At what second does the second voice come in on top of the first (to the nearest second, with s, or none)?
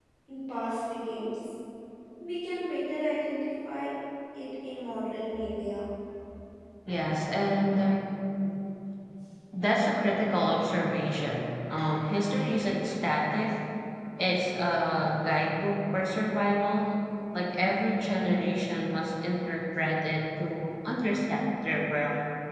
none